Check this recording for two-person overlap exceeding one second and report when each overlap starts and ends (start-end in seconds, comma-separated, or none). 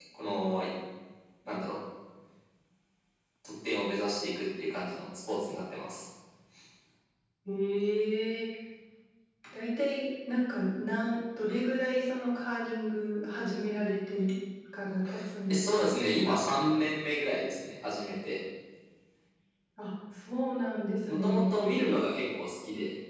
none